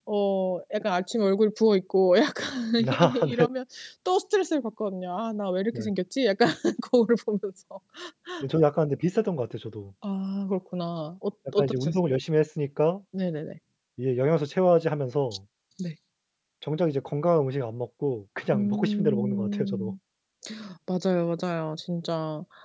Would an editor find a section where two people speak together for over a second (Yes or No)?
Yes